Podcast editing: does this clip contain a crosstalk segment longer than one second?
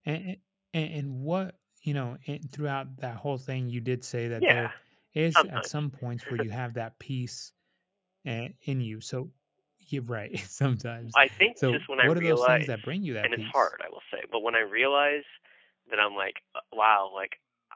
Yes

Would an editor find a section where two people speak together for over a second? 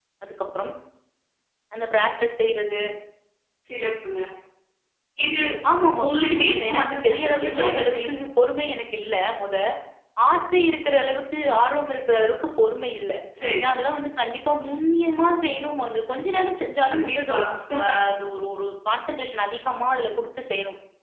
Yes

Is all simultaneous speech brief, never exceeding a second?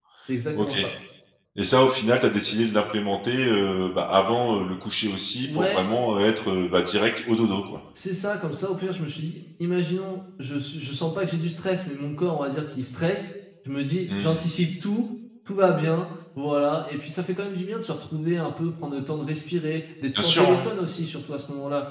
Yes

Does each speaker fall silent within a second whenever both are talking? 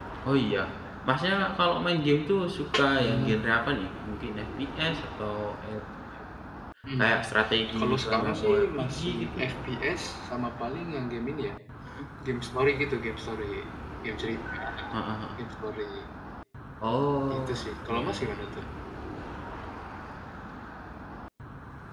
No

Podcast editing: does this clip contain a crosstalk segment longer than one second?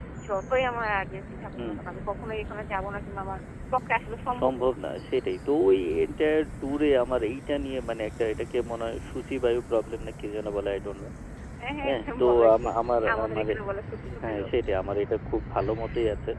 Yes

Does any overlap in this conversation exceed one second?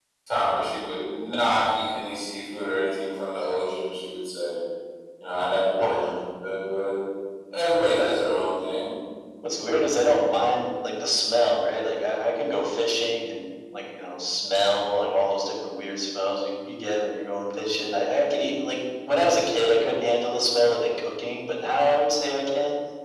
No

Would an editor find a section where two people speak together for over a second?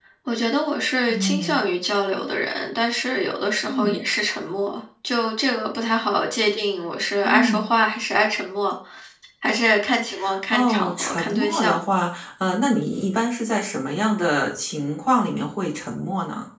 Yes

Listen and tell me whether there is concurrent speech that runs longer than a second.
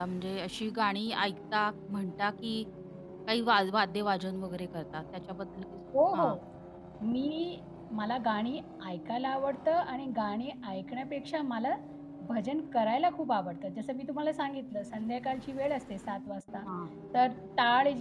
No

